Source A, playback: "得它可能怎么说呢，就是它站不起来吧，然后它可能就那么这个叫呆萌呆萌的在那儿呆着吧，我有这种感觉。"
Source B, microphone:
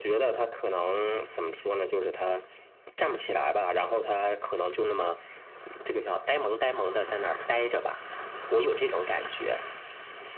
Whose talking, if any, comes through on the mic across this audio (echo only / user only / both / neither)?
echo only